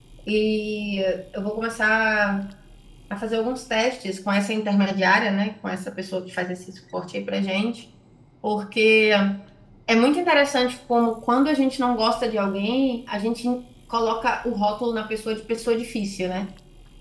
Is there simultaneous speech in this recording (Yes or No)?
No